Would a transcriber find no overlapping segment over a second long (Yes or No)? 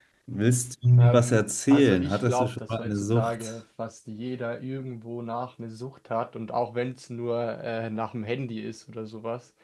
No